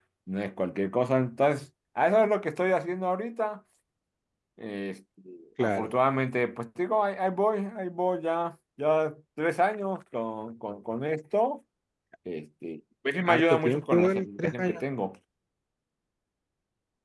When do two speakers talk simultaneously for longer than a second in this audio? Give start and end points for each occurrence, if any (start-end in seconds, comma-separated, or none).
13.2-14.8